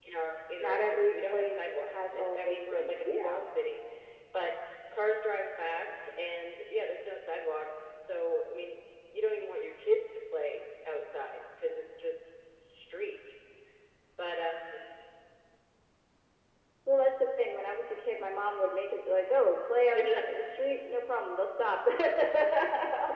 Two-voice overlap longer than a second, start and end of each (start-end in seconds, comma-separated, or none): 0.6-3.4